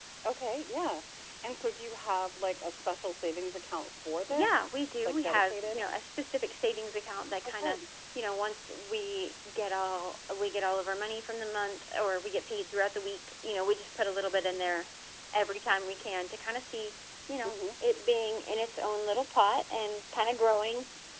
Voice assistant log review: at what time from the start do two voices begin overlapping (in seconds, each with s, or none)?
4.3 s